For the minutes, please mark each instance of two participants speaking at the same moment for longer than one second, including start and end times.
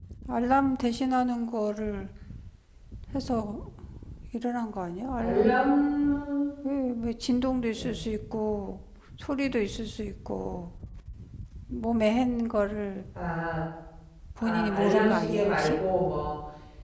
14.4-15.8

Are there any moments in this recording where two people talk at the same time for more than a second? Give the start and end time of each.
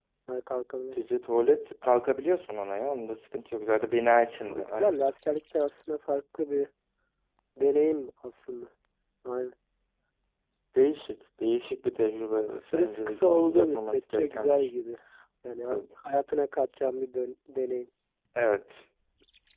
12.5-14.7

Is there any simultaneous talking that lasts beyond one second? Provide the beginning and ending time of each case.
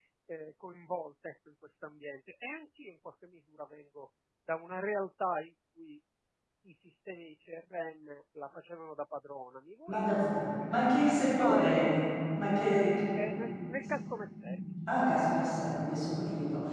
10.7-11.9

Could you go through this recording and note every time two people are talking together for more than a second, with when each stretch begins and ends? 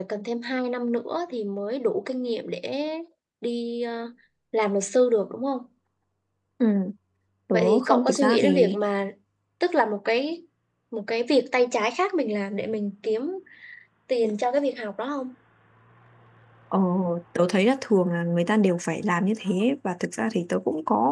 7.5-8.8

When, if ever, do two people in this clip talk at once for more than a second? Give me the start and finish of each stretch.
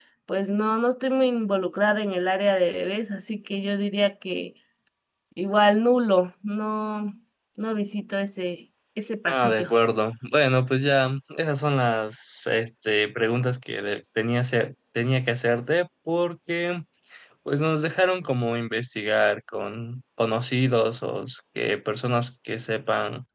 none

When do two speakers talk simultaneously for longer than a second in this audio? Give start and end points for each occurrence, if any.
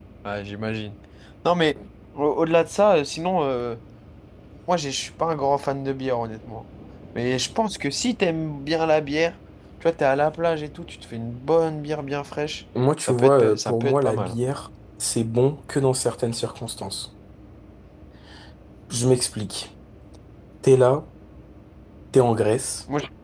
13.0-14.4

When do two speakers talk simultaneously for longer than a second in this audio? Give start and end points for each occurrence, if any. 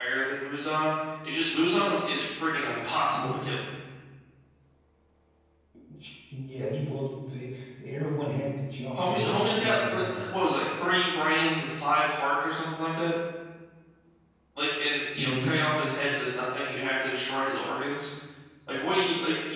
9.0-10.2

